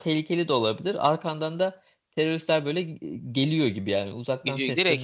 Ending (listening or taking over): taking over